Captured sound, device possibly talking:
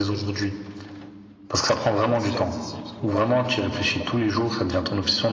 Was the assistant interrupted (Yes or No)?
Yes